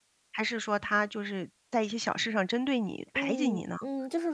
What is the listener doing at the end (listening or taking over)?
taking over